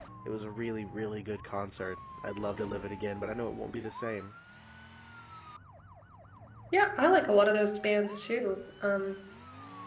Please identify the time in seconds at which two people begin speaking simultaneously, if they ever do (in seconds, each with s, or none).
none